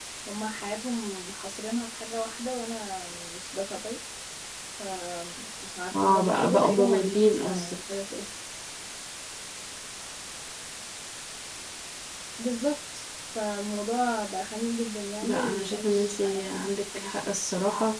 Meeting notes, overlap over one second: present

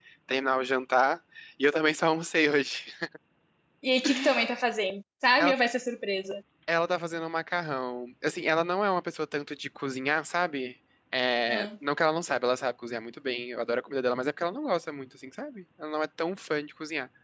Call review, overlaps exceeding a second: none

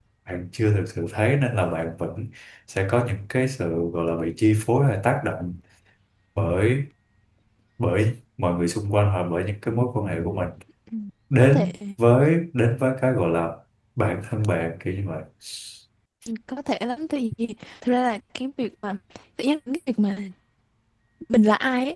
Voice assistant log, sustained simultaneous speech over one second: none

